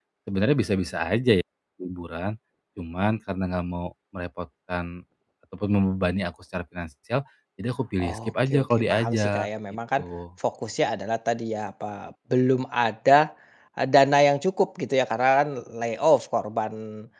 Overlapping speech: Yes, from 8.0 s

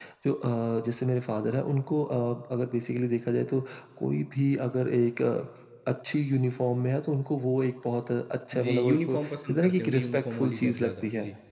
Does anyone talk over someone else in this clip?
Yes, from 8.5 s

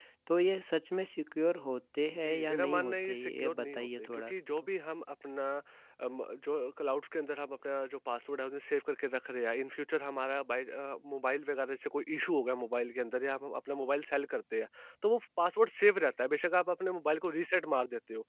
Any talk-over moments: Yes, from 2.1 s

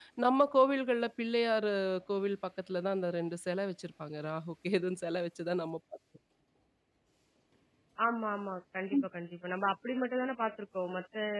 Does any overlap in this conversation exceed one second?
No

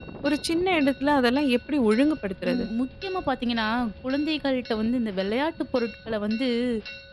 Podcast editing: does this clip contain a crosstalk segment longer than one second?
No

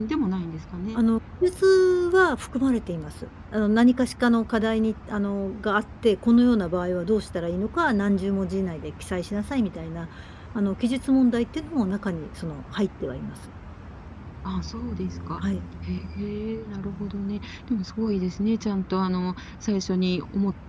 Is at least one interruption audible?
No

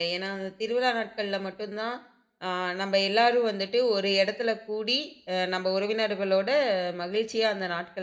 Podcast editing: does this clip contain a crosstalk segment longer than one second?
No

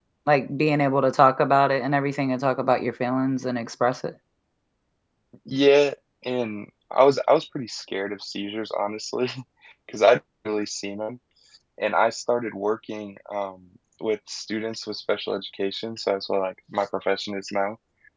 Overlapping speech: No

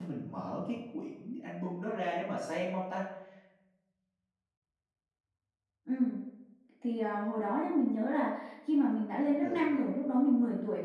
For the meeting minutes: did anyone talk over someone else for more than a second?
No

